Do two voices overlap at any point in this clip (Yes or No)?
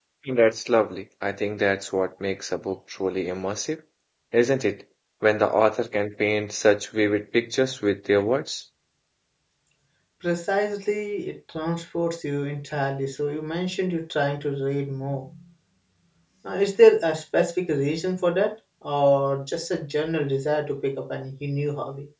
No